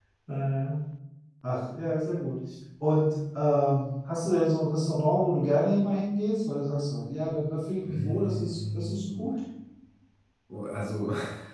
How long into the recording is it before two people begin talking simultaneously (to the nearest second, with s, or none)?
8 s